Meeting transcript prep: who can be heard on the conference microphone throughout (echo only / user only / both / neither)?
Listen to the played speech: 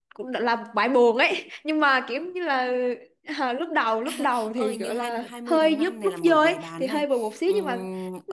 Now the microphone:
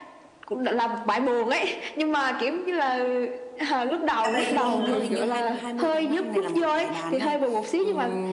both